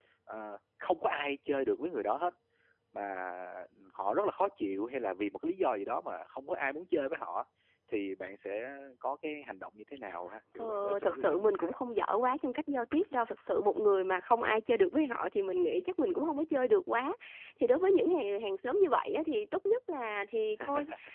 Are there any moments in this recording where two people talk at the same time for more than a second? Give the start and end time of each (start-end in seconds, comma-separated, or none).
10.6-11.8